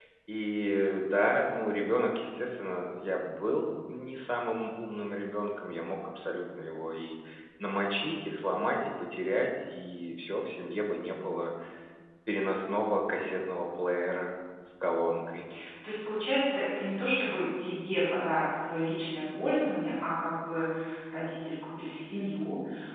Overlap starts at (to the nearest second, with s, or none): none